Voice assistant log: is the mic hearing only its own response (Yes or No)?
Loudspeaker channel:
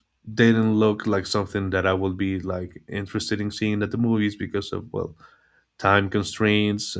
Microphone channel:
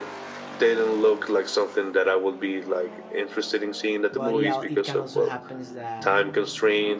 No